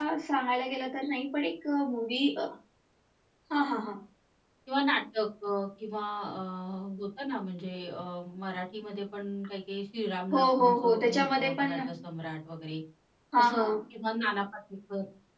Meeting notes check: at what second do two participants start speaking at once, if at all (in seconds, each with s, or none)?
10.3 s